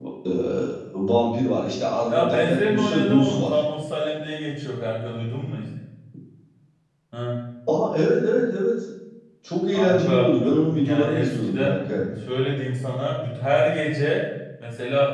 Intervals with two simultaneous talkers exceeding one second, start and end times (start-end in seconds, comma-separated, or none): 2.1-3.5, 9.7-11.8